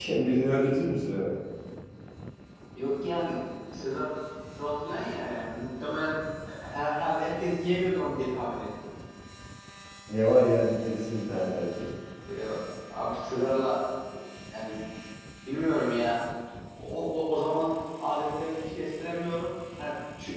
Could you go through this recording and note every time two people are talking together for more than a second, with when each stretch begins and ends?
none

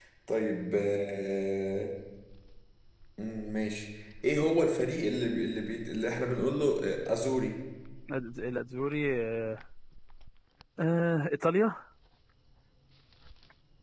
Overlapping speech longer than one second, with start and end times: none

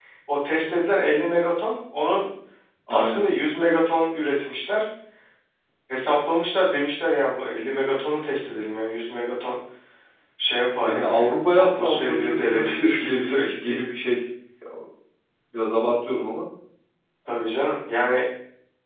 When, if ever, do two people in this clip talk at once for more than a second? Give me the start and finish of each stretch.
10.8-13.8

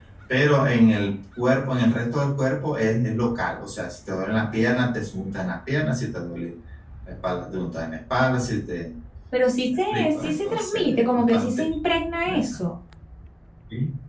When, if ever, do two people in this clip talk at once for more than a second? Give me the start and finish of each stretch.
9.7-11.6

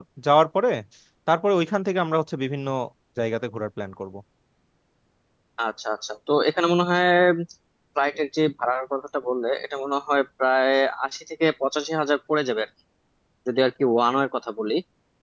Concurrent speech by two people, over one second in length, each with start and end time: none

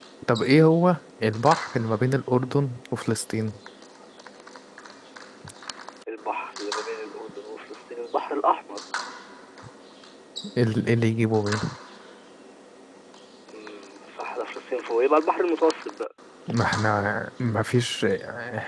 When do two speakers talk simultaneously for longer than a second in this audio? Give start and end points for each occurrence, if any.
none

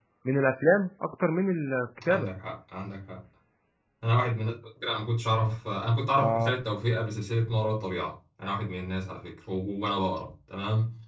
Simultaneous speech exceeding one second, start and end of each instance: none

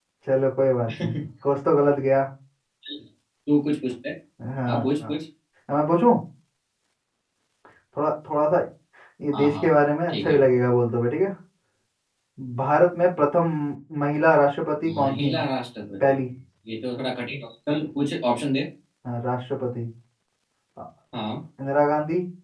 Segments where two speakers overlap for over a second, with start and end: none

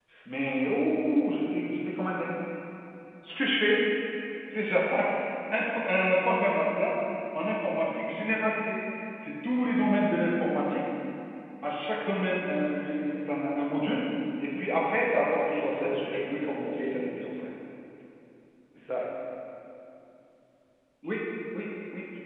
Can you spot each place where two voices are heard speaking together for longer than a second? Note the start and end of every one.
15.1-17.2

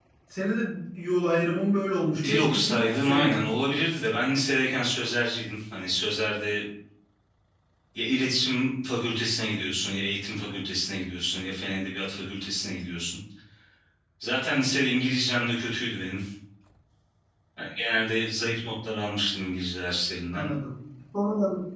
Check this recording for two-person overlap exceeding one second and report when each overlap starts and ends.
2.2-3.5

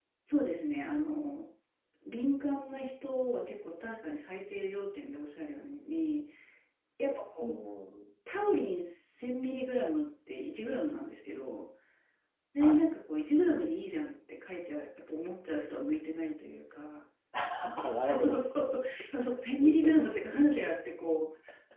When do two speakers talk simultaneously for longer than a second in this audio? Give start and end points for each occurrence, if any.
none

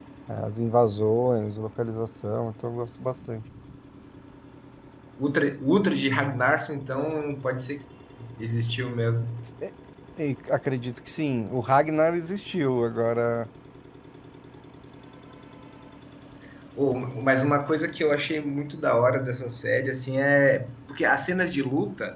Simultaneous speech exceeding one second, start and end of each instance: none

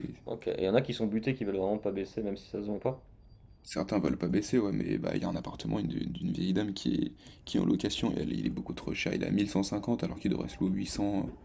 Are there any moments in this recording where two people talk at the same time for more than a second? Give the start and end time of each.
none

